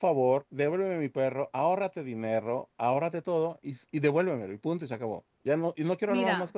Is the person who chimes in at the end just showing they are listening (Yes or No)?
No